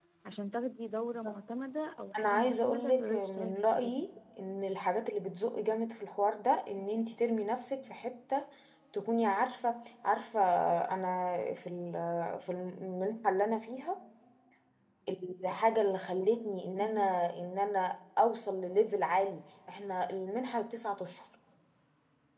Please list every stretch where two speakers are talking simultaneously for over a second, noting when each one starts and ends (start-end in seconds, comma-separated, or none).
2.2-4.0